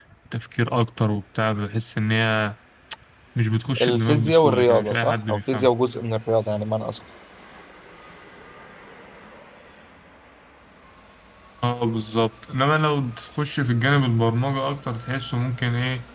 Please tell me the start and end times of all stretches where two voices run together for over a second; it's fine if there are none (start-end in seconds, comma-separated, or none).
3.8-5.7